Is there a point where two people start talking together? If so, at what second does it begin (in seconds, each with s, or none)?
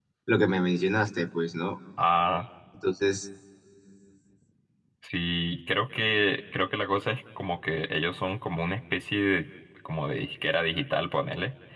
none